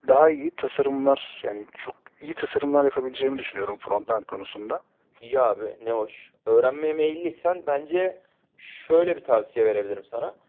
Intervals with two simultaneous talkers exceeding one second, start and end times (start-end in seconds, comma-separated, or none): none